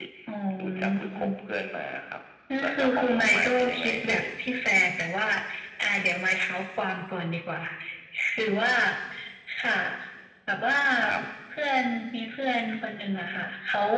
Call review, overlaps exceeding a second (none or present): present